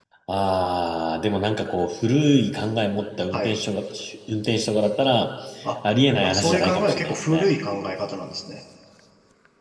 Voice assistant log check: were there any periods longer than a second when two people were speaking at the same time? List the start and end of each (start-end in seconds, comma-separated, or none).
6.2-7.5